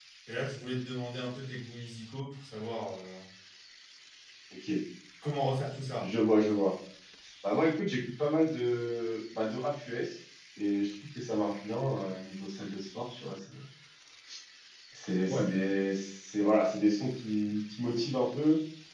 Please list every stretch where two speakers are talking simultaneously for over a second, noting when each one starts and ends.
none

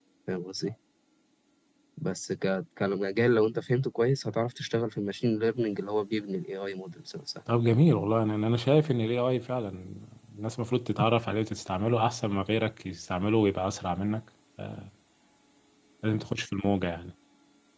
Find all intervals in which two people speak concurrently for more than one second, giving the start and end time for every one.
none

